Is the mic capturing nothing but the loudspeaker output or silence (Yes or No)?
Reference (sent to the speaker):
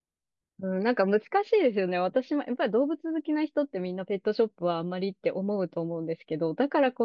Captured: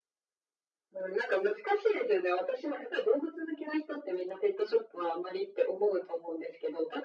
Yes